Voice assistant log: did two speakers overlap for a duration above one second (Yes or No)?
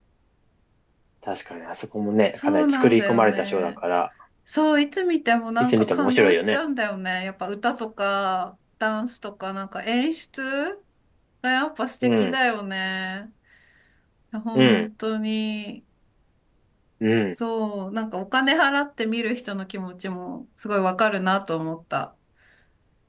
Yes